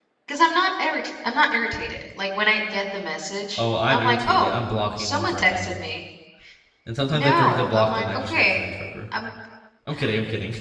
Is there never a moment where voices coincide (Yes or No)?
No